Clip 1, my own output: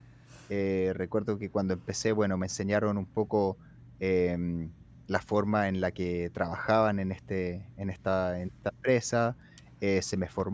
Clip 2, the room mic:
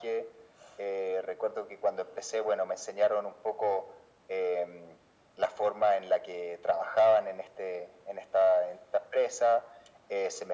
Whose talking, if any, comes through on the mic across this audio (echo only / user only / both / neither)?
echo only